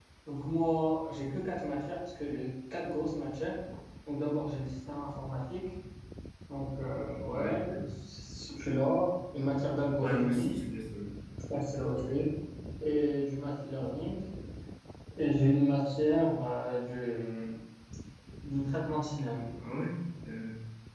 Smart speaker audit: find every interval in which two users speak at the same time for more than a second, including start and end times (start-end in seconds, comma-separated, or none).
none